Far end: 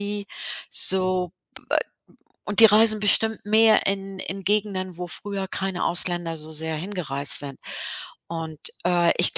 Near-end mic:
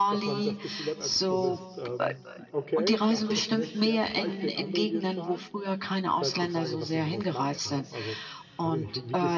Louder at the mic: echo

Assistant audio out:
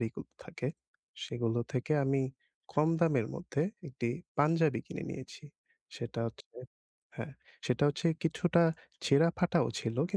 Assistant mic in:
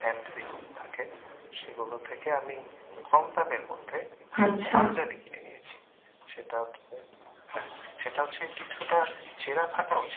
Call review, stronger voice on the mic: user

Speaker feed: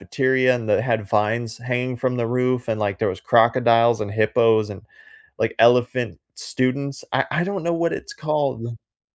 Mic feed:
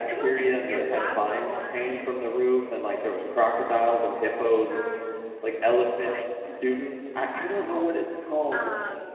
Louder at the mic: echo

